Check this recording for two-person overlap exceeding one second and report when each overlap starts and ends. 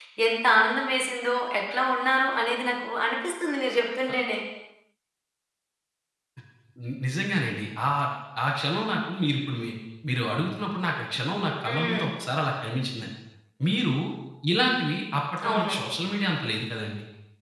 none

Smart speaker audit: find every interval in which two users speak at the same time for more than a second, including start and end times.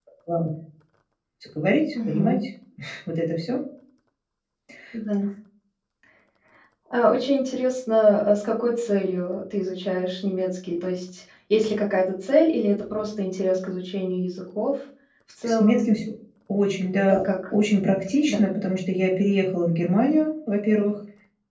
none

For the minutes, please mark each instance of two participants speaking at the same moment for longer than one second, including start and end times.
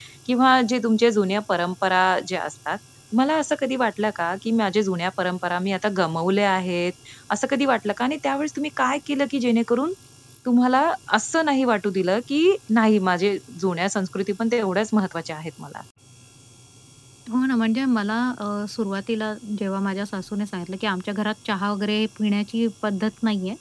none

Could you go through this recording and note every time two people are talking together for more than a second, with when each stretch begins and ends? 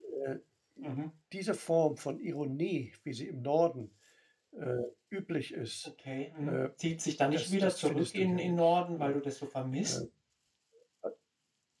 7.3-9.2

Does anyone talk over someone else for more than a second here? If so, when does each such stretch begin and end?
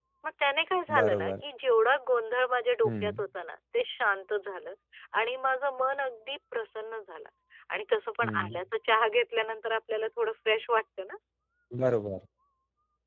none

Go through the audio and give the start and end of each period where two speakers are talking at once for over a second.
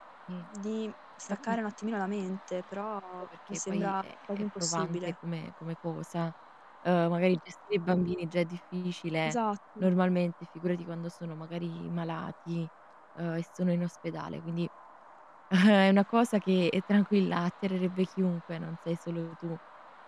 3.5-5.1

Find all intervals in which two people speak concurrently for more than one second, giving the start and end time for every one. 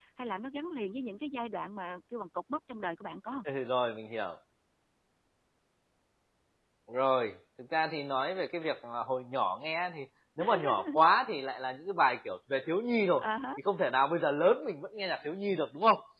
none

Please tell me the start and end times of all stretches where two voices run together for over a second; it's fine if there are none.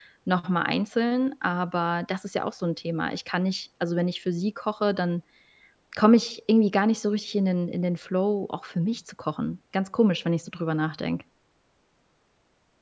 none

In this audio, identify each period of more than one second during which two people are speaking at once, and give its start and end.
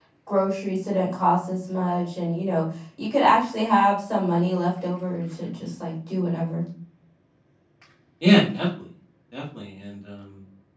none

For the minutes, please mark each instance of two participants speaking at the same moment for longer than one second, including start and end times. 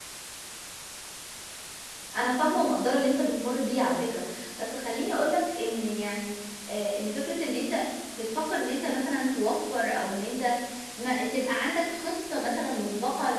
none

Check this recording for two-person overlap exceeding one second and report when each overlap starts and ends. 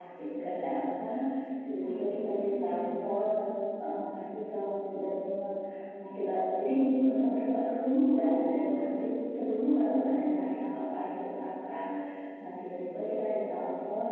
1.8-3.2

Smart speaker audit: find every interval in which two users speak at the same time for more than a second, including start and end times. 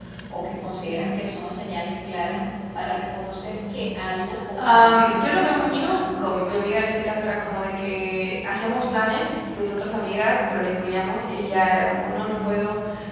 4.7-6.0

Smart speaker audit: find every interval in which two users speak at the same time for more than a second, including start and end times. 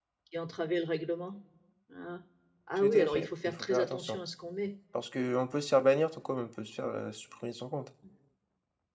2.8-4.2

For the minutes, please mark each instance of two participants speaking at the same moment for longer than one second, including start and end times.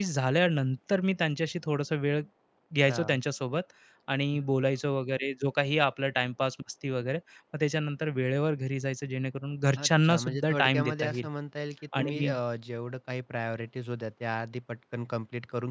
9.8-11.3

